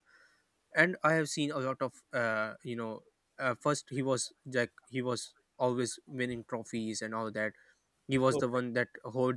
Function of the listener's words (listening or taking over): listening